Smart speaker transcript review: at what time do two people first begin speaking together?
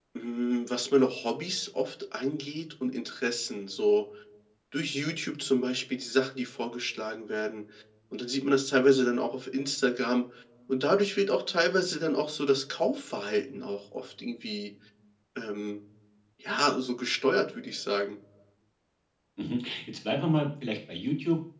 none

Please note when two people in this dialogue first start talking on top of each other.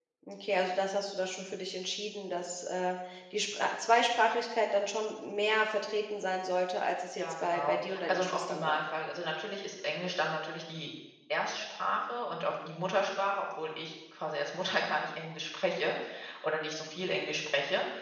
7.2 s

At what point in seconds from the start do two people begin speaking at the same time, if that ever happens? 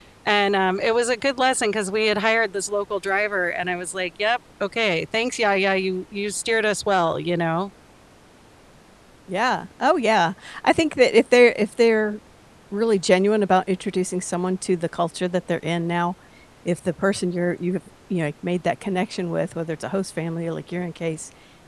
none

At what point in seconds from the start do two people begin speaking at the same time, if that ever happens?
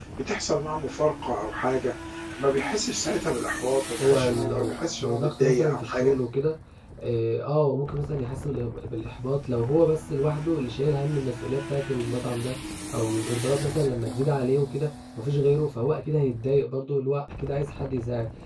4.0 s

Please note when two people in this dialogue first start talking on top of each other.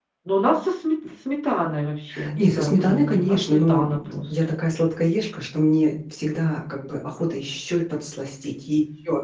2.1 s

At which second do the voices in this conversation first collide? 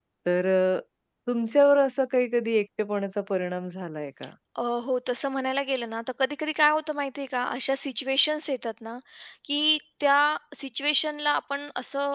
none

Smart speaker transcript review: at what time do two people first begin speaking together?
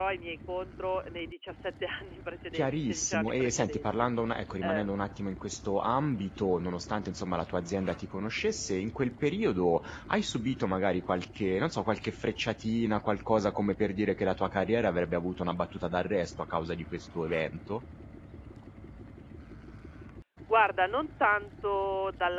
2.5 s

